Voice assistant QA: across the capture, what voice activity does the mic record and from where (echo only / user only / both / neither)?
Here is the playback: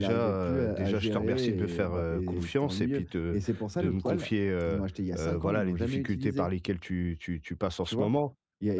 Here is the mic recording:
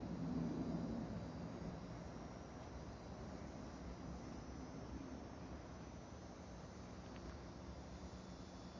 neither